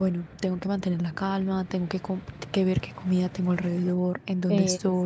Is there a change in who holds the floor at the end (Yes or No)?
No